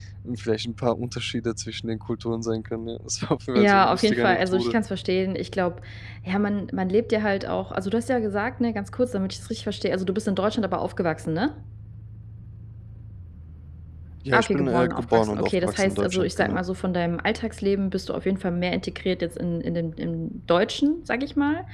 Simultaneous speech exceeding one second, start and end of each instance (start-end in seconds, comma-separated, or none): 3.5-4.8, 14.3-16.6